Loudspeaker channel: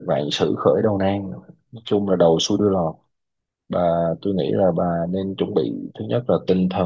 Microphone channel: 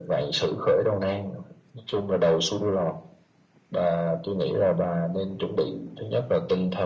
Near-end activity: none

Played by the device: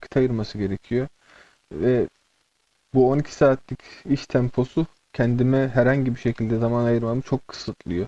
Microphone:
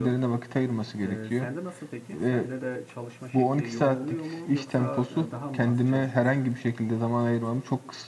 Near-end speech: present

